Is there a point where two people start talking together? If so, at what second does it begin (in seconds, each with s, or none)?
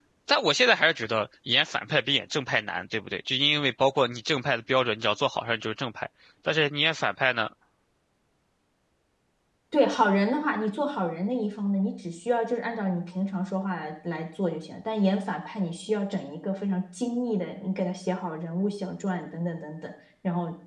none